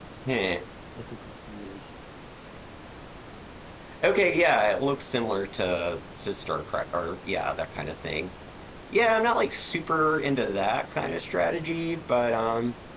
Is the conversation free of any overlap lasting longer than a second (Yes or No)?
Yes